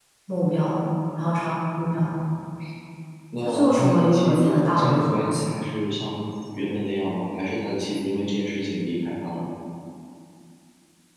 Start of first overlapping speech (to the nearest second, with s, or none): 3 s